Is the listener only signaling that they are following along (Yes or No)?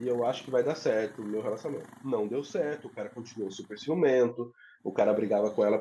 Yes